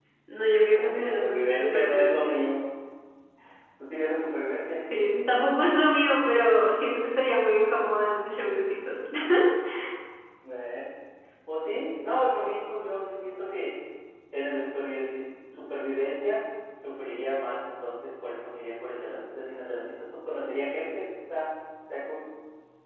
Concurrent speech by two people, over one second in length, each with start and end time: 0.7-2.4

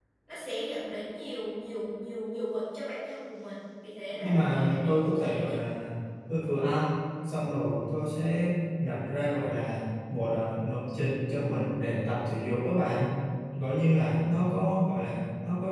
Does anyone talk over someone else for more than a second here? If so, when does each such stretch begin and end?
4.2-5.6

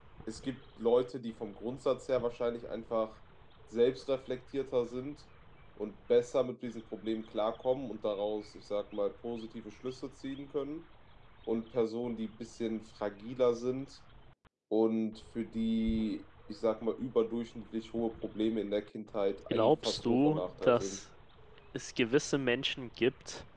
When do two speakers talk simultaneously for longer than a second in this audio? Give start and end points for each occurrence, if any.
19.5-21.0

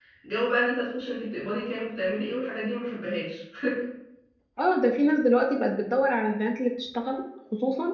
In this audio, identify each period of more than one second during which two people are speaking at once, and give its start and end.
none

